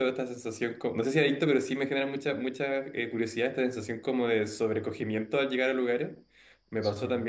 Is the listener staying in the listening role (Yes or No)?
Yes